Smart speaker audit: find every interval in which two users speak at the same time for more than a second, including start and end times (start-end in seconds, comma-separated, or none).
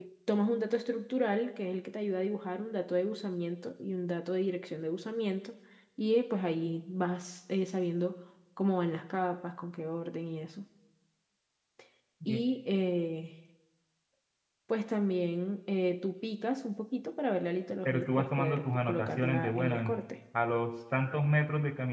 17.8-19.9